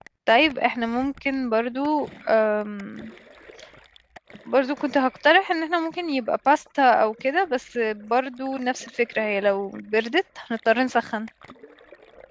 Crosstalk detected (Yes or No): No